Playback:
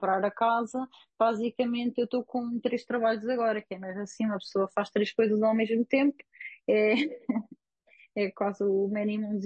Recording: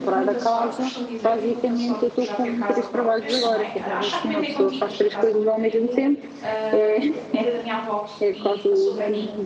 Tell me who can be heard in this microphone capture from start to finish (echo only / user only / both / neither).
both